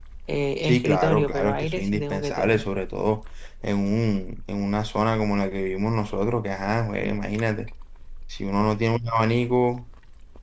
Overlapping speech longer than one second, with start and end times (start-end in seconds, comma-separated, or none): 0.6-2.6